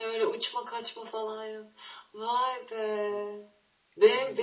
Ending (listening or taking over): listening